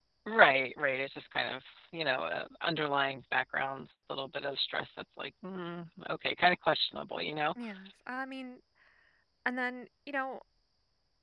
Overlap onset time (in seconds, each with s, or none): none